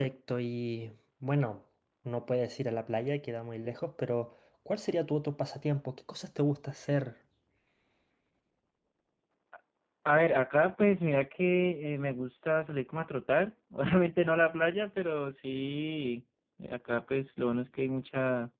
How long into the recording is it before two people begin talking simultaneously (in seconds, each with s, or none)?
none